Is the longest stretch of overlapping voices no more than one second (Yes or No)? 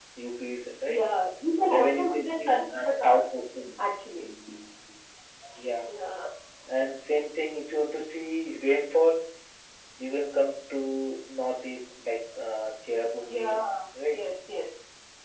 No